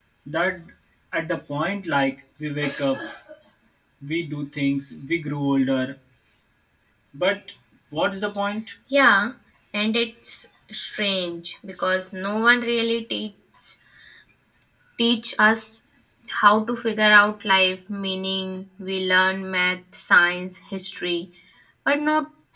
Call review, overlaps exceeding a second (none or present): none